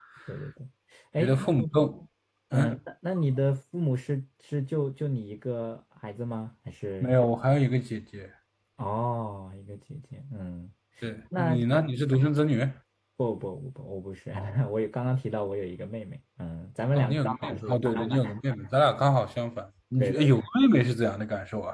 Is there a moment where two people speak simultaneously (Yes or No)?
Yes